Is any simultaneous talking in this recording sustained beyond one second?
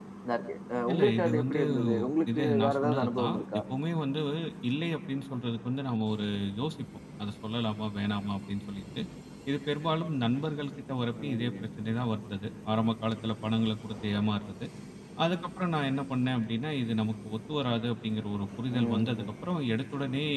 Yes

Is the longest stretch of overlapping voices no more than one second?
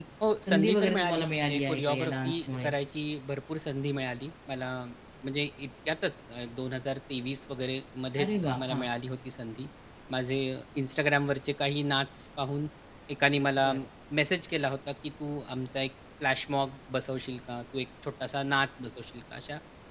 No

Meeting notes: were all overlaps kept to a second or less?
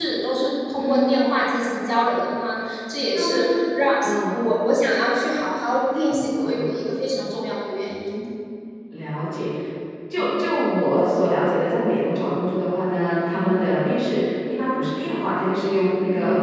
Yes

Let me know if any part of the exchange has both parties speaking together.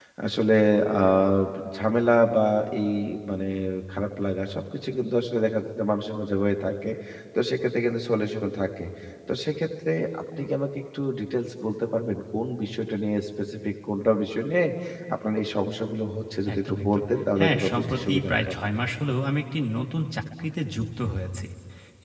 Yes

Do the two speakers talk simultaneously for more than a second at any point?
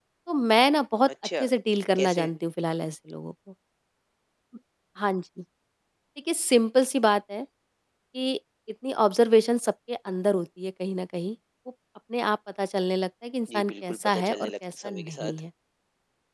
Yes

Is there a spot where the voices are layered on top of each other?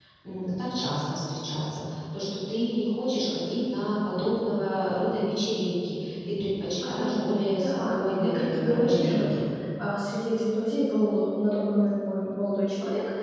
Yes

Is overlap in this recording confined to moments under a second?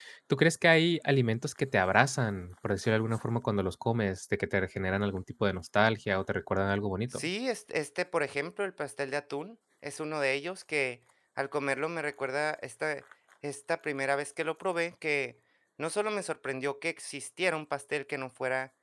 Yes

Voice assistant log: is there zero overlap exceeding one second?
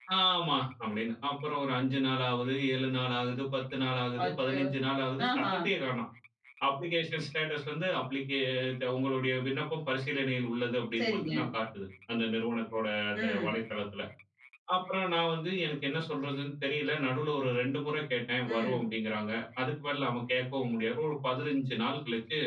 Yes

